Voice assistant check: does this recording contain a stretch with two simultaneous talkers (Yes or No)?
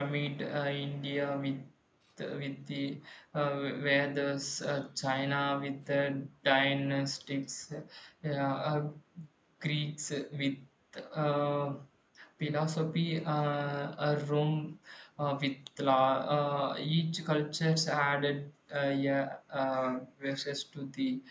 No